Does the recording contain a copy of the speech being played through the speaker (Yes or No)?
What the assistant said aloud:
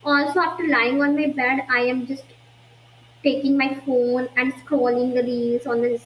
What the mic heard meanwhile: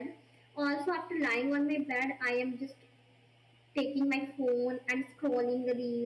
Yes